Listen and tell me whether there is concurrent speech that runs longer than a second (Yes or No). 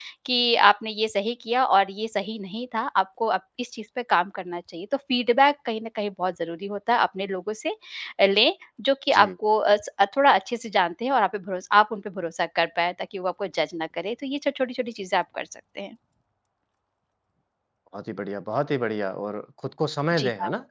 No